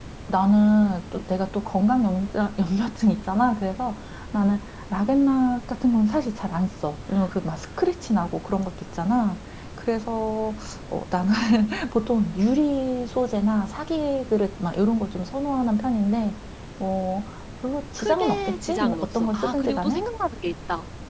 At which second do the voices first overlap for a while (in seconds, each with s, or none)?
18.0 s